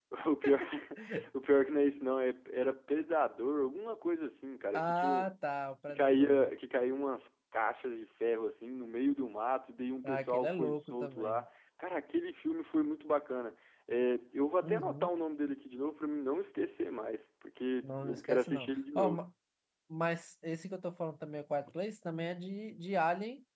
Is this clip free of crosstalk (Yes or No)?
No